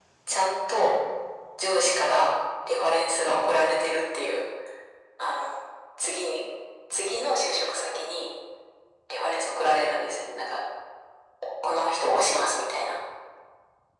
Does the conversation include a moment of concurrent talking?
No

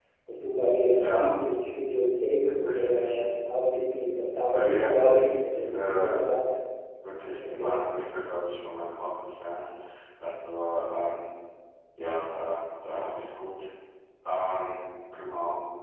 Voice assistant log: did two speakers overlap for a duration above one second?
Yes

